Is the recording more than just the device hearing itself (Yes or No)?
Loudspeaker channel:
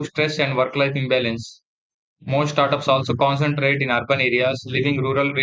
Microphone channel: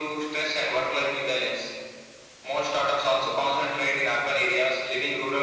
No